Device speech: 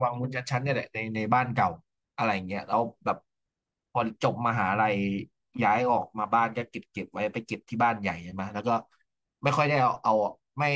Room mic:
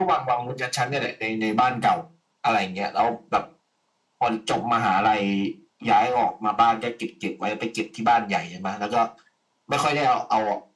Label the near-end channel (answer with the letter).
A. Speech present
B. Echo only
B